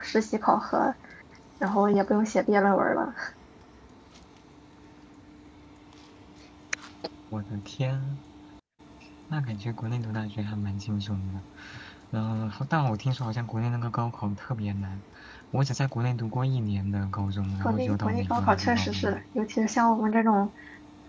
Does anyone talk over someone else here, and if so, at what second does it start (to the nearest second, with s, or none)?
18 s